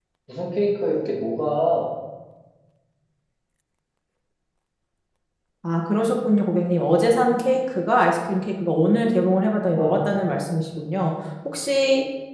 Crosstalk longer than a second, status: none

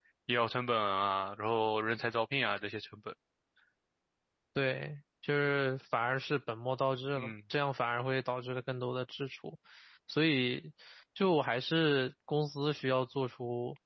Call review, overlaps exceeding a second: none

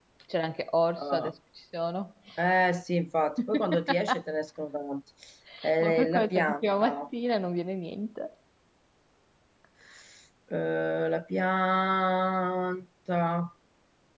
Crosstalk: present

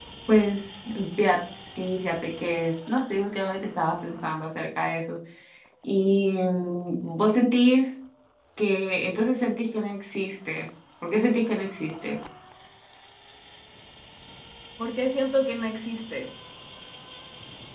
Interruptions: none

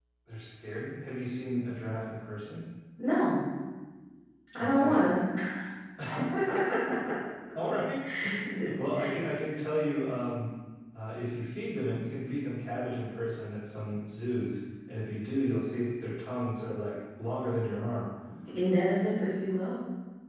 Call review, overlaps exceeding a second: none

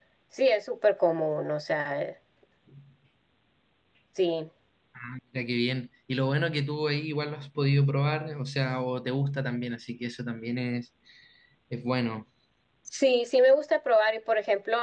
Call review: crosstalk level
none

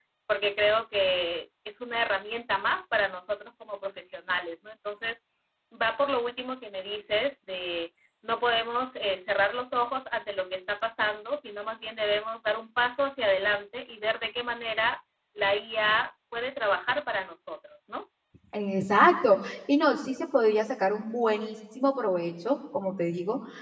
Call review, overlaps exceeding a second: none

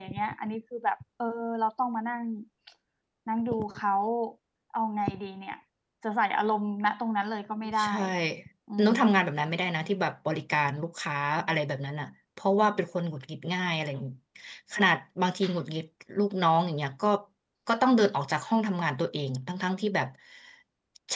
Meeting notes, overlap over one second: none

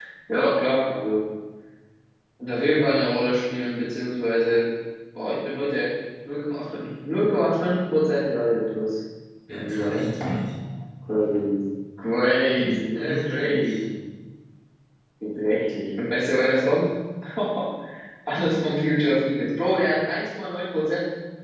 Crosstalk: present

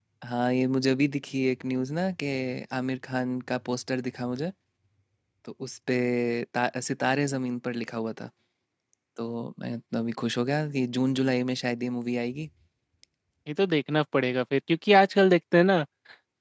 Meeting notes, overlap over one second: none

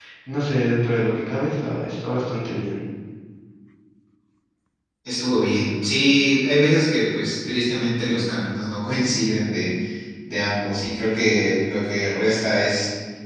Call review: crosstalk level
none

